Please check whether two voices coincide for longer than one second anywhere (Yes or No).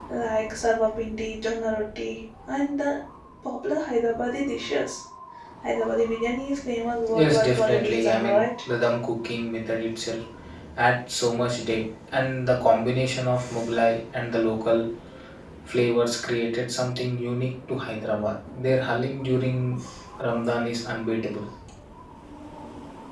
Yes